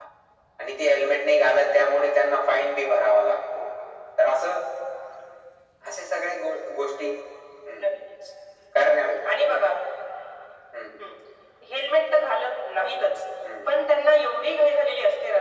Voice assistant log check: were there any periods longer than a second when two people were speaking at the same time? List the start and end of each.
none

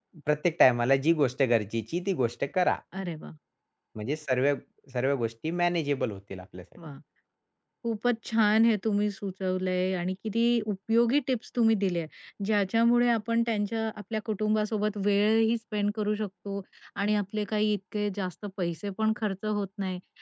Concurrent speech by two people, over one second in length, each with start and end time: none

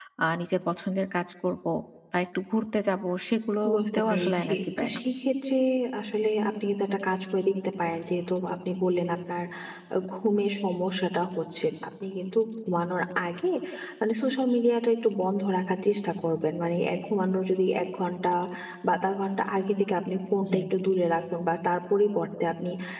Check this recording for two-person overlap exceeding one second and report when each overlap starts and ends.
3.7-5.0

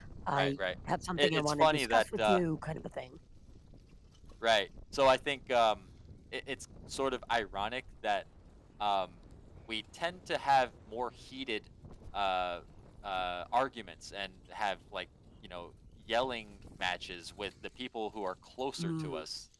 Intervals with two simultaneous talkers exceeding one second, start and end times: 1.2-2.4

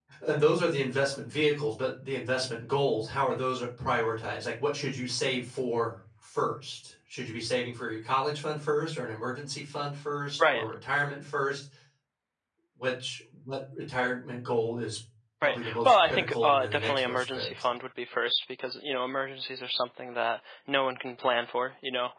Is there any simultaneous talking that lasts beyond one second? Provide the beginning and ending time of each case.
15.4-17.7

